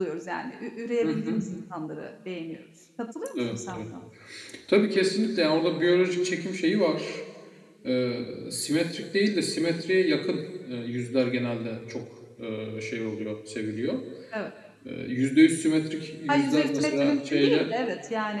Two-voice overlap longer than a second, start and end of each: 16.3-17.7

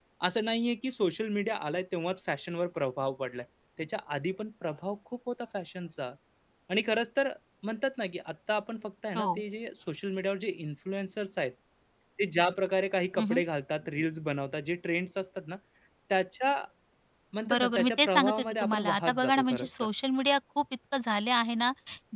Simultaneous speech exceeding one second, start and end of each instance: 17.5-19.9

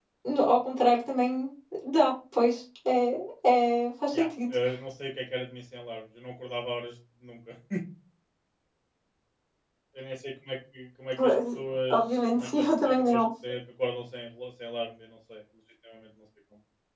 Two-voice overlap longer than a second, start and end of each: 11.9-13.2

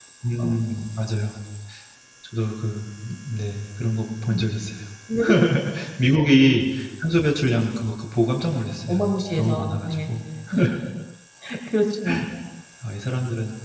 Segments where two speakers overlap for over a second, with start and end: 8.9-10.1

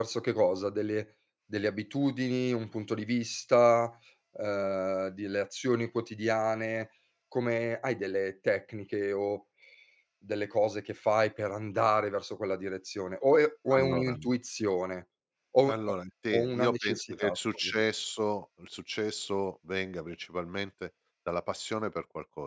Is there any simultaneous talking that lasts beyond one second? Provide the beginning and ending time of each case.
16.3-17.8

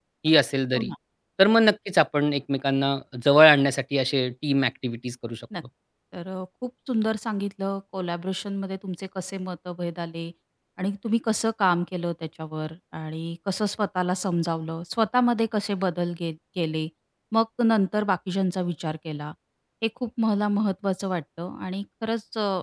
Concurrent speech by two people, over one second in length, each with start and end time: none

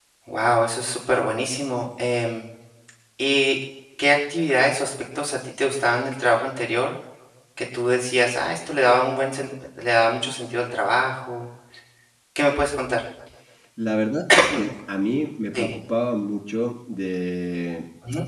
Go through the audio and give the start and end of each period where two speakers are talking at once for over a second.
none

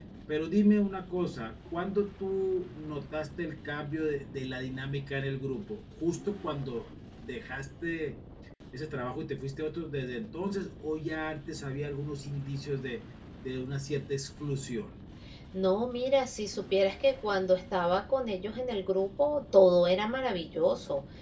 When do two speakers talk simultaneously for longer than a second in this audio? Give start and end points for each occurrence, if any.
none

